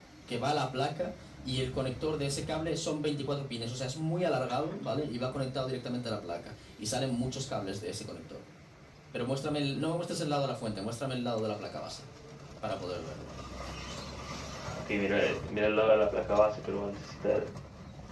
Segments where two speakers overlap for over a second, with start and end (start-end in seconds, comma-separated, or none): none